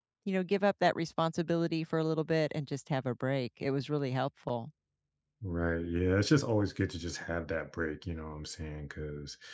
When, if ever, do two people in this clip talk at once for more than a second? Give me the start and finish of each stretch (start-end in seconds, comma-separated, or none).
none